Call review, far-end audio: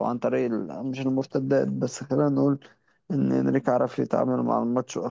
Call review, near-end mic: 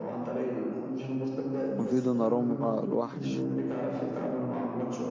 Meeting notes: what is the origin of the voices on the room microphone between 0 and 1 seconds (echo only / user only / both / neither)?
echo only